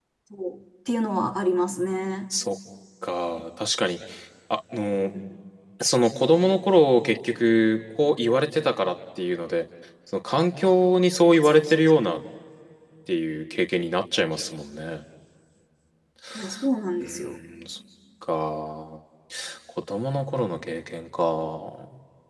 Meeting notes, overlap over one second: none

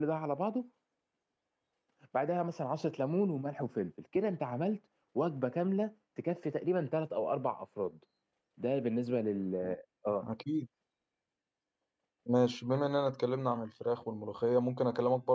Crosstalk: none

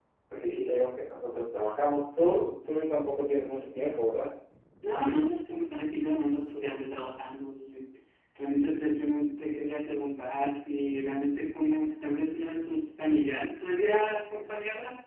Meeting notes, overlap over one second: none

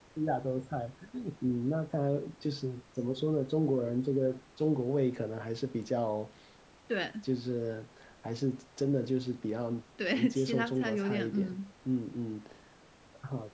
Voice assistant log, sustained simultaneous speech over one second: present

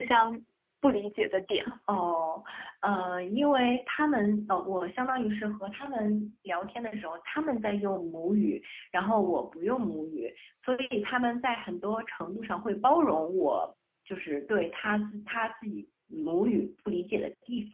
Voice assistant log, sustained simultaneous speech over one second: none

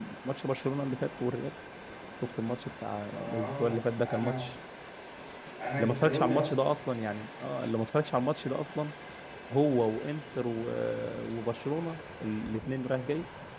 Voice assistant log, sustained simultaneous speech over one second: present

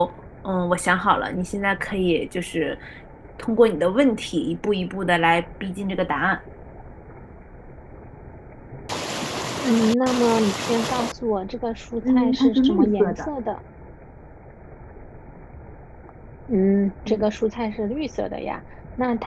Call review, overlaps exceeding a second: present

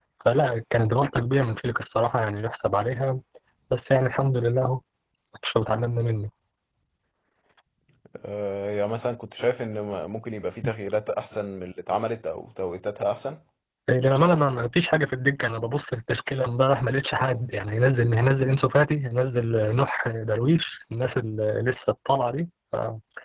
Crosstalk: none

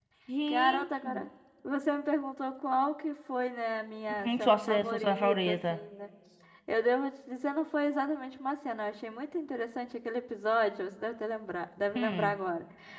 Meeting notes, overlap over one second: present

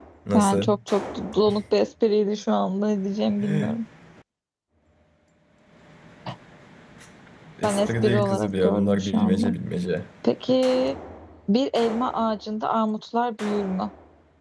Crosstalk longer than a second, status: present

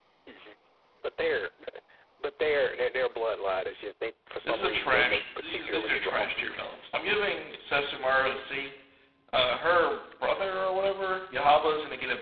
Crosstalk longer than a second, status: present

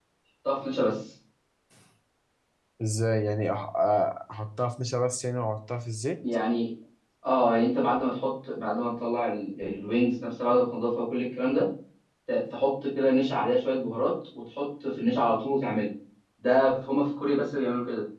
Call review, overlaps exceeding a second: none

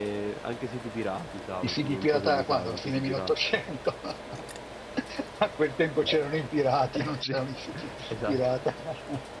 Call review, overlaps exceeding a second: present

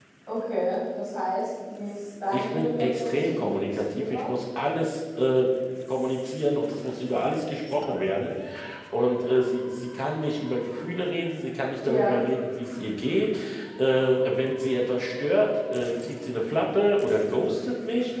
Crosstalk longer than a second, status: present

